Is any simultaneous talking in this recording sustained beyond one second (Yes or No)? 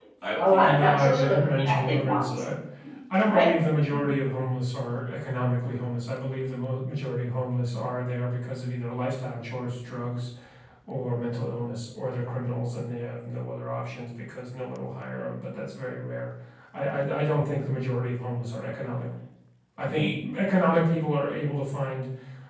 Yes